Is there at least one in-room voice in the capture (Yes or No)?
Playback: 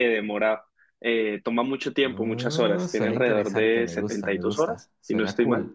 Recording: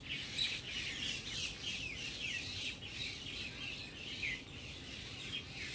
No